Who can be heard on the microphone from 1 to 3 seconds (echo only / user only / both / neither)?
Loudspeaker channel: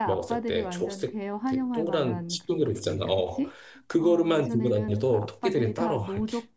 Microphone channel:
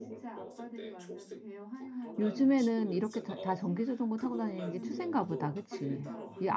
both